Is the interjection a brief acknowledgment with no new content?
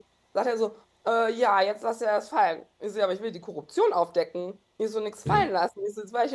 Yes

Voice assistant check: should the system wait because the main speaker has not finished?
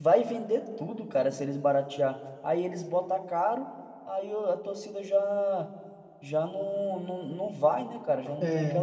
No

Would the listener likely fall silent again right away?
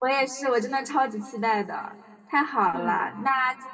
Yes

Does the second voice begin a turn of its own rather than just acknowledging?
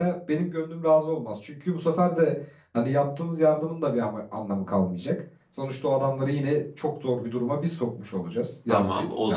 Yes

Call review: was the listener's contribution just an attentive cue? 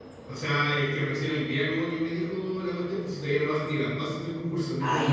No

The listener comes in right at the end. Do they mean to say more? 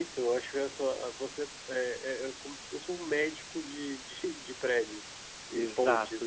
Yes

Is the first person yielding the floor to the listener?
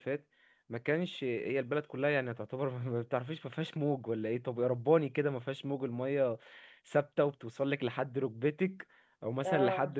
No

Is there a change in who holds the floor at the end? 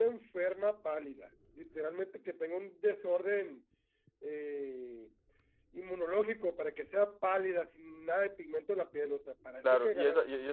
Yes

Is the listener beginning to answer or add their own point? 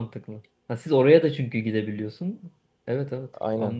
Yes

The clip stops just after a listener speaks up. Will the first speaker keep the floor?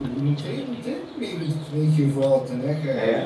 No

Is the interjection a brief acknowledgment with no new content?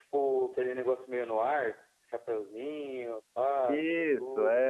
No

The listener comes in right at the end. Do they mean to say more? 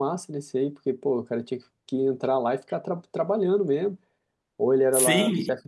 Yes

